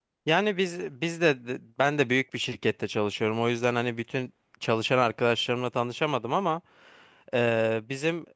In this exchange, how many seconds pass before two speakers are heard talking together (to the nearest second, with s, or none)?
none